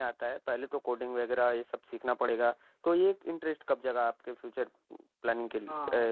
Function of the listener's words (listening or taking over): taking over